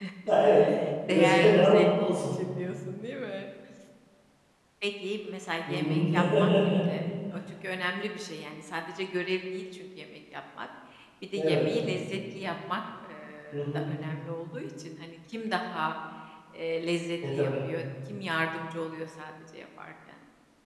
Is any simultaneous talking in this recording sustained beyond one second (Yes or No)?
Yes